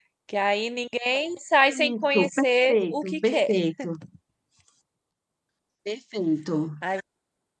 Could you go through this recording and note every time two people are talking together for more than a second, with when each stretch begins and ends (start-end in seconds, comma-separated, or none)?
2.0-3.5